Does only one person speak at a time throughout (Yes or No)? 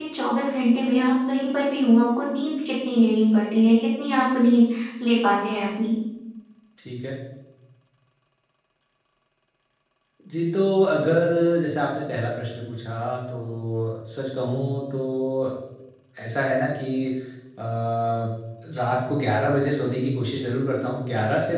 Yes